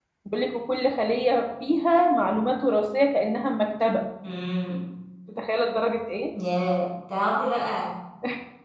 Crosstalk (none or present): none